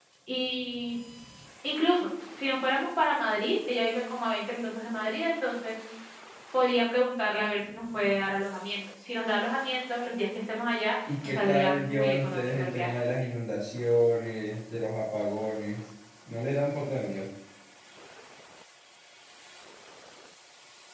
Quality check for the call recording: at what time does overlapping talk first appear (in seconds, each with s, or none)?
11.1 s